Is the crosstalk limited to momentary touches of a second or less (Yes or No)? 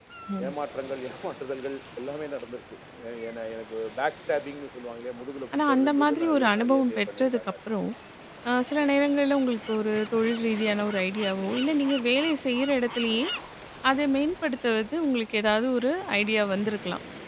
No